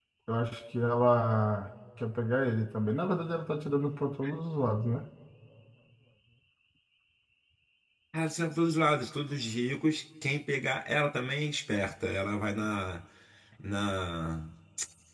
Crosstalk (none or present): none